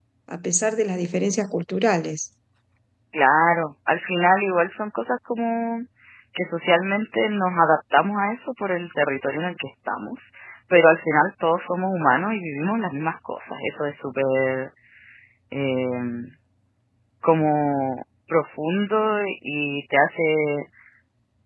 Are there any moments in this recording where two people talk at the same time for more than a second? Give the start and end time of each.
none

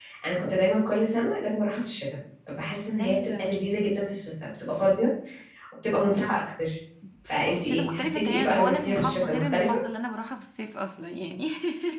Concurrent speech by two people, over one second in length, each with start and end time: 7.5-9.8

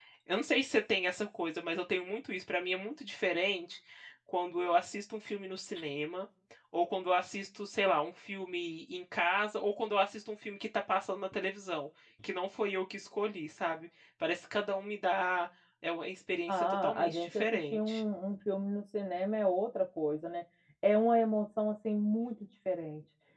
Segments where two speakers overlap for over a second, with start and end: 16.5-18.0

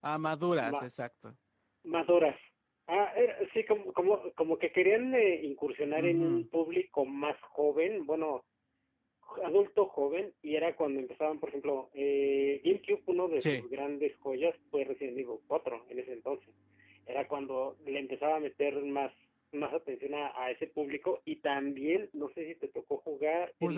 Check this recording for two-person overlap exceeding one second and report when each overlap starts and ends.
none

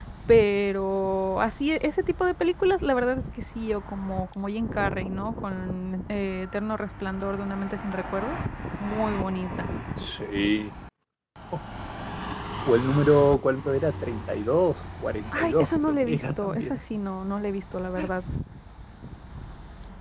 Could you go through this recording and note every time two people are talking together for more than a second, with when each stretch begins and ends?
15.4-16.8

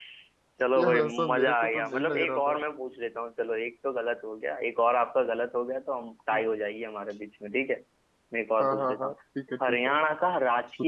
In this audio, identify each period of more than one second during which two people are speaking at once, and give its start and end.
0.8-2.6

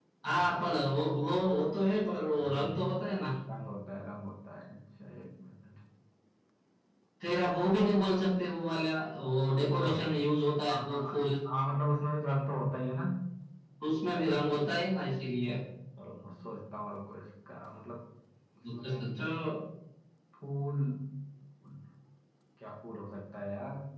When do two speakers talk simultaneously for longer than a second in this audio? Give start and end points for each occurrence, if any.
none

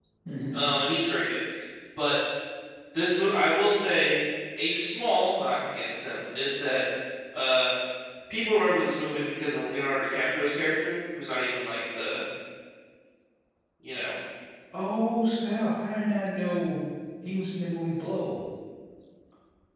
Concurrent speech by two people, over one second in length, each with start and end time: none

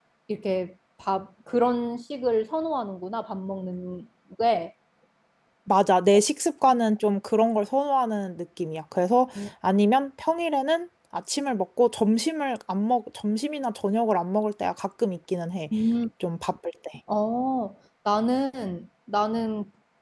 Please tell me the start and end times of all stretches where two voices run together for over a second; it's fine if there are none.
none

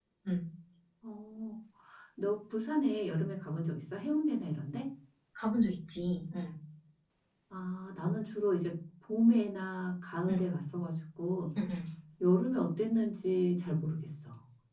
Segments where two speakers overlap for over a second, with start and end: none

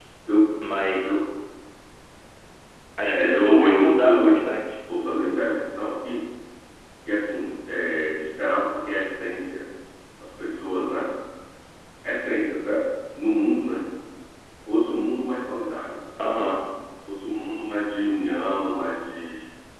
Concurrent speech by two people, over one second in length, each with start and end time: 3.0-4.4

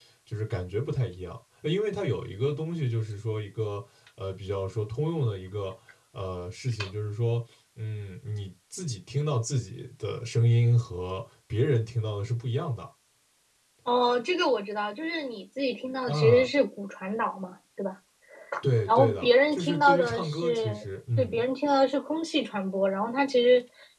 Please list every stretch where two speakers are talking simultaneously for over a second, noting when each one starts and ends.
18.9-20.8

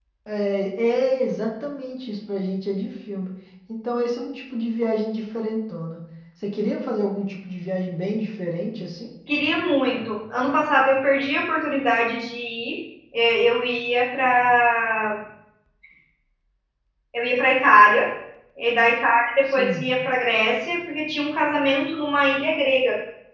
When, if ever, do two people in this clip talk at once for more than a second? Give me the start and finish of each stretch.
none

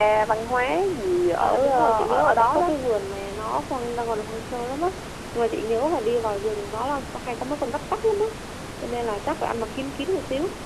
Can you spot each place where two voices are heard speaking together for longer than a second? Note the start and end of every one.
1.4-2.7

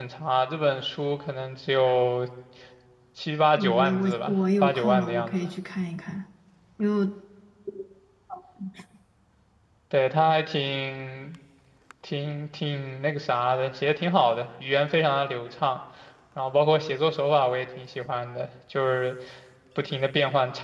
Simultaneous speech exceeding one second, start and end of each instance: 3.5-5.5

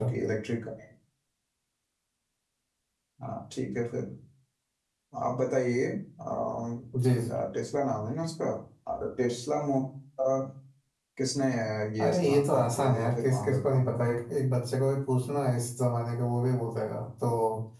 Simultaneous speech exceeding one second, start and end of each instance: 12.0-13.9

